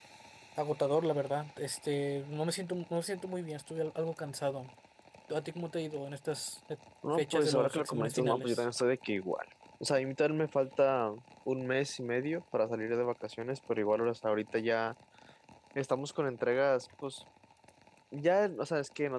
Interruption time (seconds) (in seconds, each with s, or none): 7.0 s